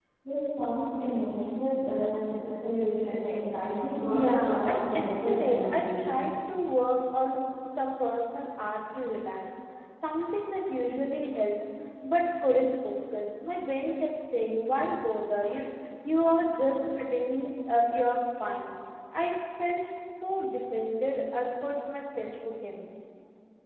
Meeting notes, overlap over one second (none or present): present